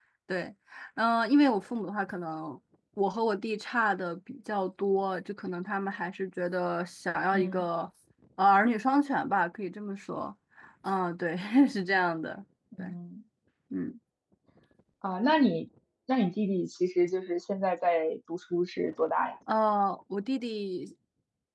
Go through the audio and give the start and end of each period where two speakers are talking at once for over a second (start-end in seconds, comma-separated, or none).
none